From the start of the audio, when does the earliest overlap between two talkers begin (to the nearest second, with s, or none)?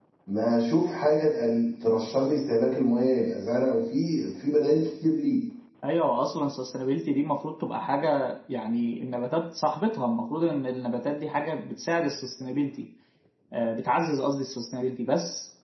none